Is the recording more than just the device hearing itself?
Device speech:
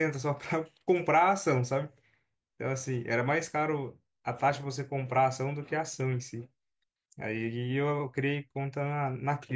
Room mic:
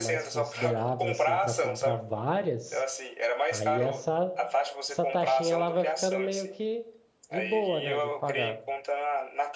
Yes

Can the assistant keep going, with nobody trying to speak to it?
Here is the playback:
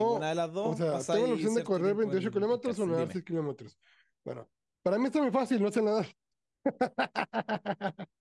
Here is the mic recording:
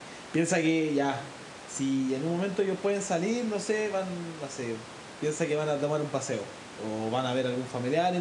No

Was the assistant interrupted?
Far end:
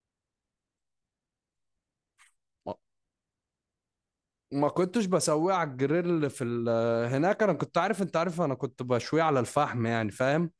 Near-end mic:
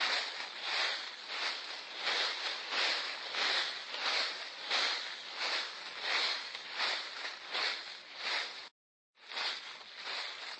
No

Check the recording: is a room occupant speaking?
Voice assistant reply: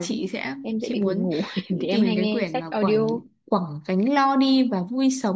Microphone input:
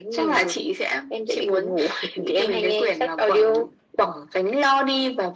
No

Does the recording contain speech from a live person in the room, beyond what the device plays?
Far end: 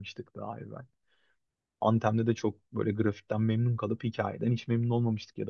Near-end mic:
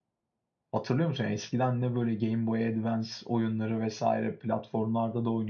Yes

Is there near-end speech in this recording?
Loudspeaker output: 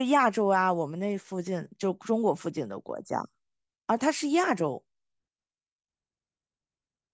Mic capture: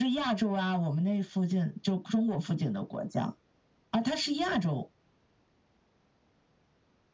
No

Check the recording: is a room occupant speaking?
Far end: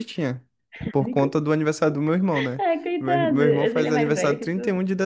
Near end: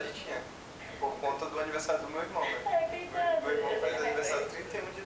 No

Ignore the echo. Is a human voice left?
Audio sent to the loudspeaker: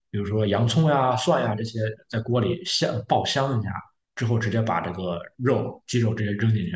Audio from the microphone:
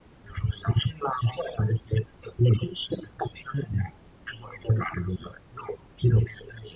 No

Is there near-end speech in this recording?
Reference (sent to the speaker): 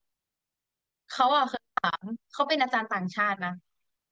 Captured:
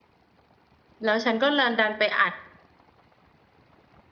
Yes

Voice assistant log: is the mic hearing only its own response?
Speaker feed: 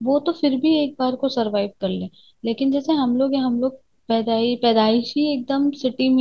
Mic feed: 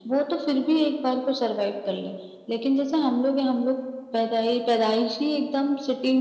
Yes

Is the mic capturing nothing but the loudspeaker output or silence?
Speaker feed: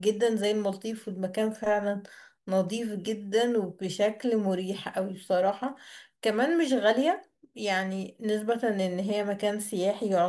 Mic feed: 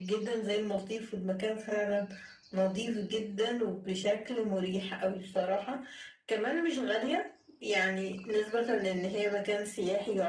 Yes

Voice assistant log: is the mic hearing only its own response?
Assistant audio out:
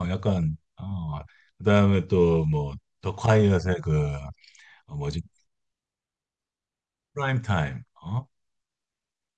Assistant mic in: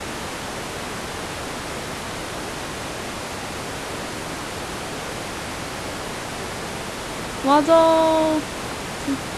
No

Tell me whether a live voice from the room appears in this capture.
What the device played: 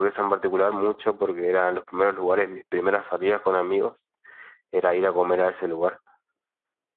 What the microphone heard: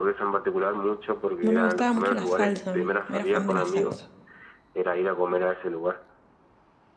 Yes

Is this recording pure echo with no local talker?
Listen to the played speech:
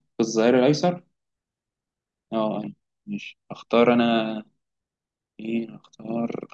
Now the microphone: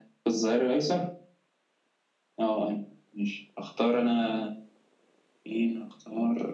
Yes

